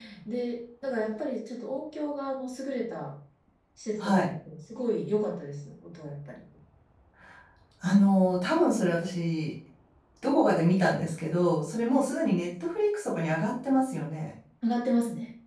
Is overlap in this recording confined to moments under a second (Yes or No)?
Yes